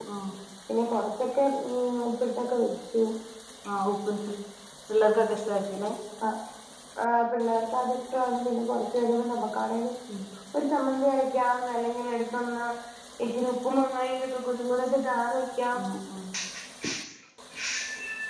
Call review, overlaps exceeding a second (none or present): none